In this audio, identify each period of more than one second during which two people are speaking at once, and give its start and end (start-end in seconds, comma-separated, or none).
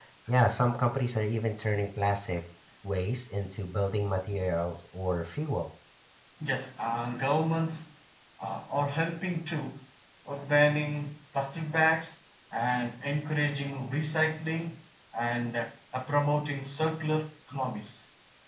none